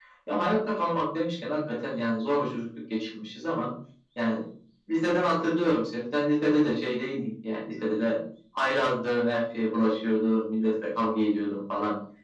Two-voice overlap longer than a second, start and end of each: none

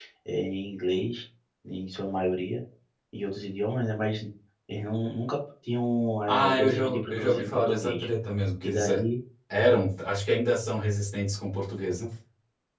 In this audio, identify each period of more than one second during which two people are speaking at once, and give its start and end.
6.3-8.0

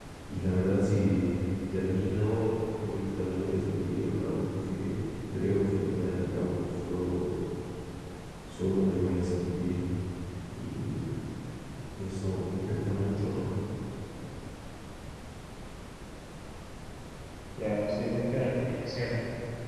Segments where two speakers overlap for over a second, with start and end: none

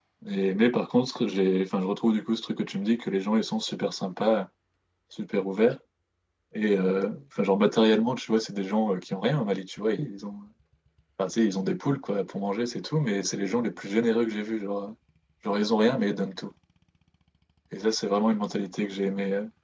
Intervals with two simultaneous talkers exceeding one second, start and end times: none

